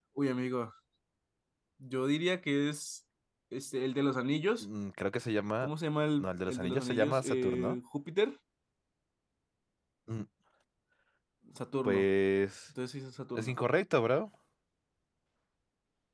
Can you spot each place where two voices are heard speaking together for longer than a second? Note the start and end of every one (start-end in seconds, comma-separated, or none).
6.2-7.8